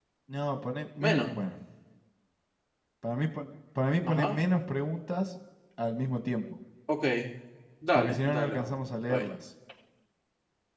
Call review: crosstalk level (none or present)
present